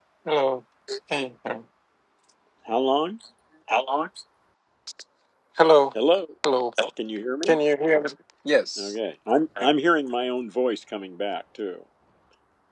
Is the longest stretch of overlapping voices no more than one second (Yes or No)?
Yes